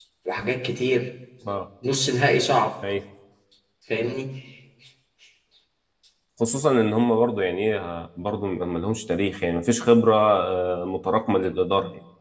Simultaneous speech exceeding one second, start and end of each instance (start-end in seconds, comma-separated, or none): none